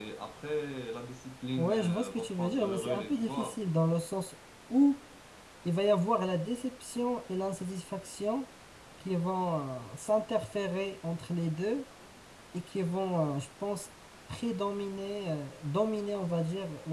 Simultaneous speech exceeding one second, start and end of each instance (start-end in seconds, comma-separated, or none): 1.6-3.6